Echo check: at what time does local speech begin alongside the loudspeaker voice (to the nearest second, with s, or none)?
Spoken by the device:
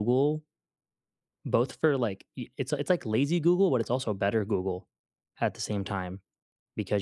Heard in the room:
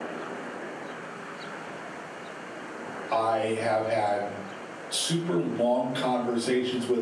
3 s